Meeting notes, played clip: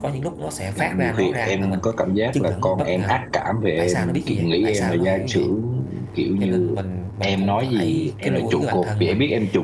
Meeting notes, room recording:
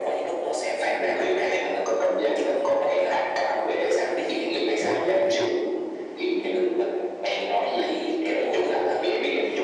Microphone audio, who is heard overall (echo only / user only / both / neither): both